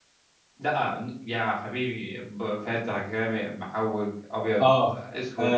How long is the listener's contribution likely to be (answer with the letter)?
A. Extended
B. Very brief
A